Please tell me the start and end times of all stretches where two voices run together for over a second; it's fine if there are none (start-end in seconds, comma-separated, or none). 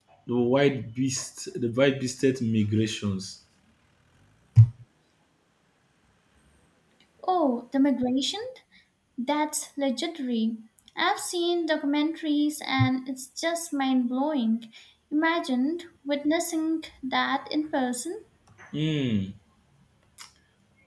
none